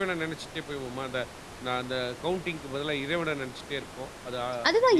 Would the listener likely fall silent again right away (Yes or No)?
No